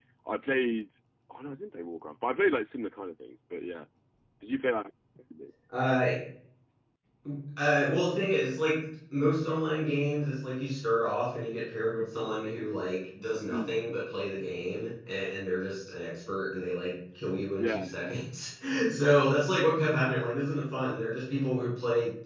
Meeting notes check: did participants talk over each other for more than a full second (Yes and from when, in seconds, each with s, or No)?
No